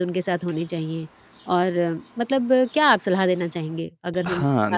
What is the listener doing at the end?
taking over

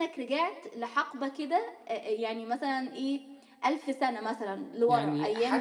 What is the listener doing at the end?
taking over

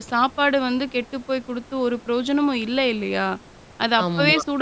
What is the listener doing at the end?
listening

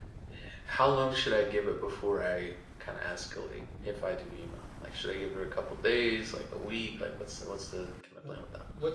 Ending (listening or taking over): taking over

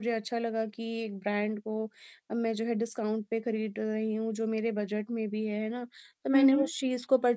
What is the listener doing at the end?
listening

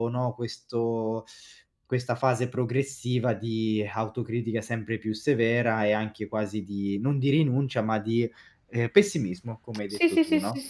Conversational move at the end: taking over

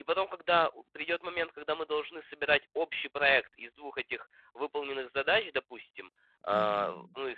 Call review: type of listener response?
listening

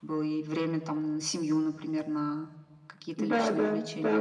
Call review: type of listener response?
taking over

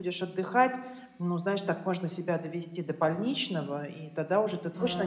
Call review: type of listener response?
listening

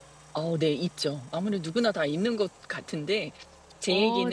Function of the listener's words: listening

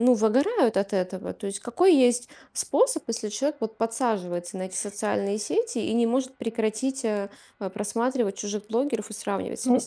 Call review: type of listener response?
taking over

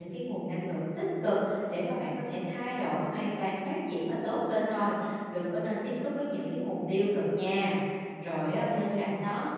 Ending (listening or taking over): listening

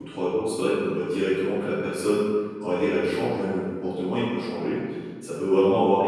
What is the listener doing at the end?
listening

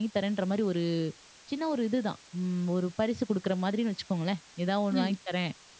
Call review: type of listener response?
listening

